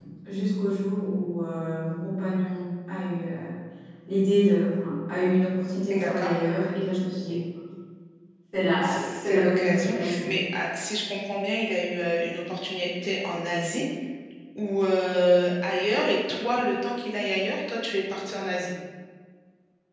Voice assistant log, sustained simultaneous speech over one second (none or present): present